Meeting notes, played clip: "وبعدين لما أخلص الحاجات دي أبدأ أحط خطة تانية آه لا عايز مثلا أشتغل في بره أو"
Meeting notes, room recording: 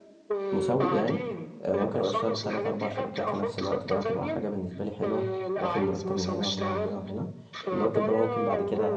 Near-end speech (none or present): present